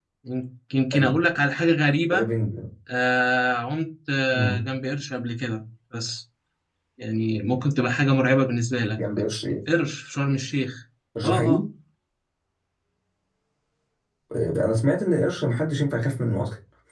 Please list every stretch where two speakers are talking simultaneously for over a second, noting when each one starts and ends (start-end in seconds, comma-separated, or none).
none